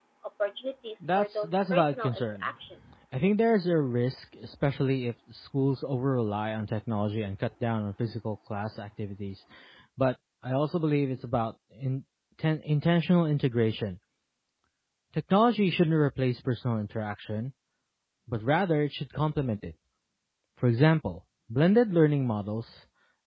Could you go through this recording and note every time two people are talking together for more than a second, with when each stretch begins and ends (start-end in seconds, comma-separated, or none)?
1.0-2.5